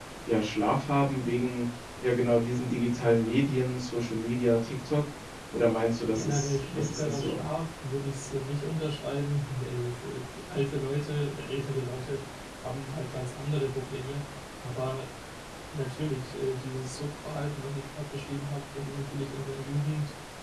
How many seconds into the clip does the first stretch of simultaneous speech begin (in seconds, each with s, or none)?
6.1 s